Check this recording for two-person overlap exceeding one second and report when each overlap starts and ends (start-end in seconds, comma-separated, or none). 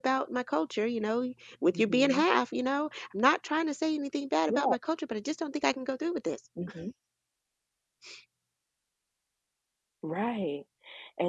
none